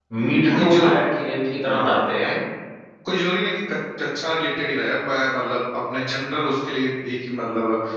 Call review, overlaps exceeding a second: none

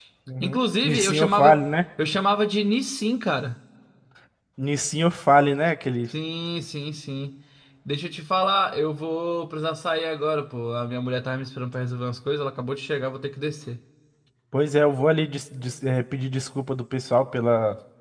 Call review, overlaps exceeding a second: present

